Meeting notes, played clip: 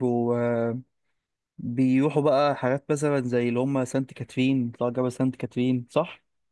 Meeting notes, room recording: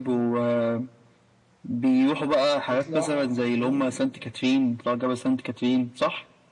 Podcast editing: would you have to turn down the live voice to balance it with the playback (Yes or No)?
No